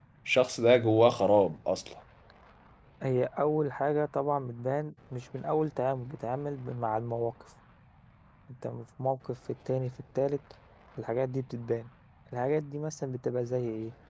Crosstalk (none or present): none